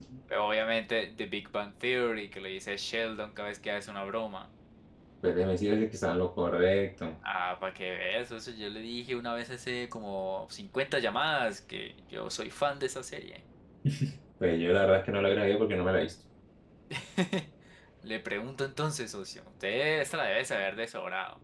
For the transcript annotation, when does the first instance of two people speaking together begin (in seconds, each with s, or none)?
none